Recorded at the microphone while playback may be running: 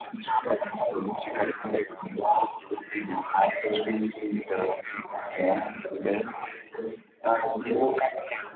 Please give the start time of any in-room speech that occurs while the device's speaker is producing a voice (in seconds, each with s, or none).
none